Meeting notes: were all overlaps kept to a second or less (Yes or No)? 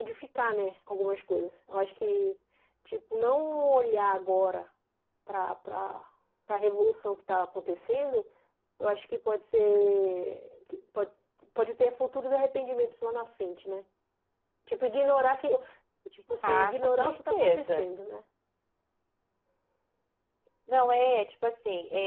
No